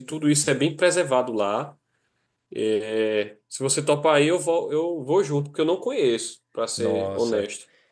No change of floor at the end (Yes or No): No